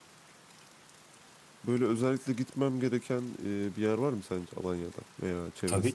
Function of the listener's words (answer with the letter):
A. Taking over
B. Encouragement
A